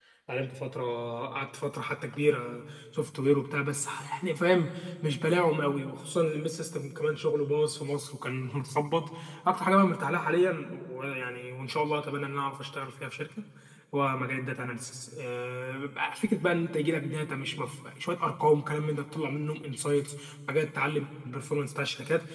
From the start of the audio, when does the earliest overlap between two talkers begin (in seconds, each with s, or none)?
none